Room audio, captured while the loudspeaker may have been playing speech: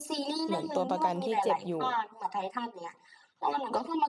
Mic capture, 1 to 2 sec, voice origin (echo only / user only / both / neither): both